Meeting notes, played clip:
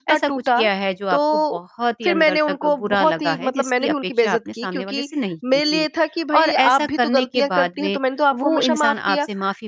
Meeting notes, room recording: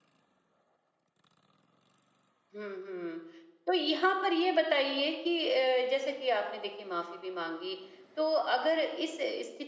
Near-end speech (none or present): present